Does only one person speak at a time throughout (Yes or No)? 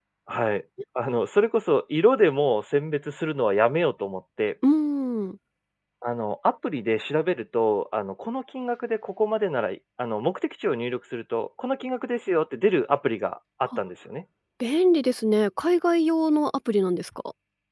Yes